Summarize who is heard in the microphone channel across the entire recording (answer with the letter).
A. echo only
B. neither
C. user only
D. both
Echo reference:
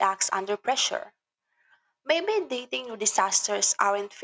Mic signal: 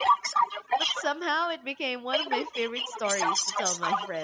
D